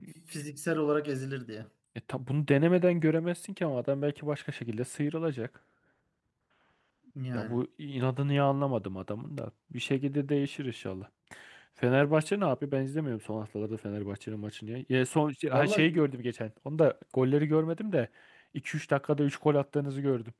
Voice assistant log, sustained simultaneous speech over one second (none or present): none